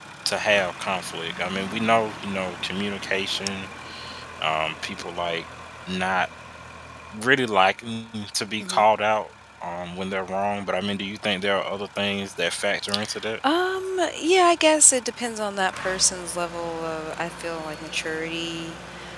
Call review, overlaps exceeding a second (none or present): none